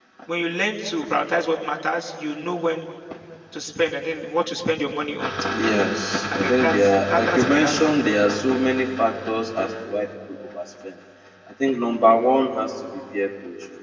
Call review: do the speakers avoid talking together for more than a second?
No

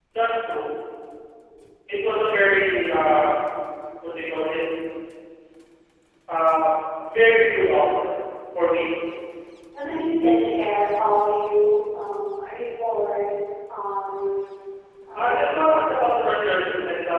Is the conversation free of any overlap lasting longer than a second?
No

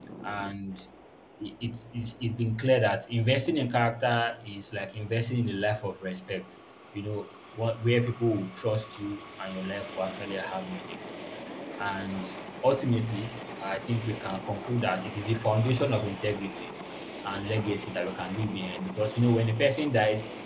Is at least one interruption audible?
No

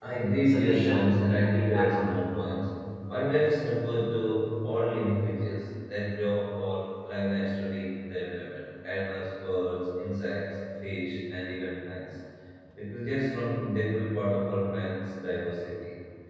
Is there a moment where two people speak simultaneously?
Yes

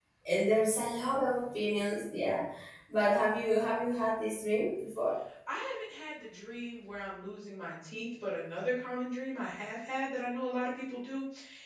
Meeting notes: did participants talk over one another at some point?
No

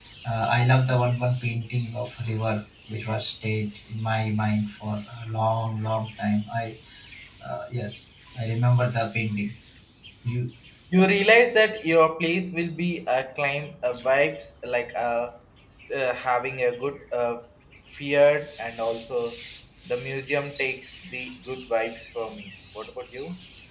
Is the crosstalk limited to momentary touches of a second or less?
Yes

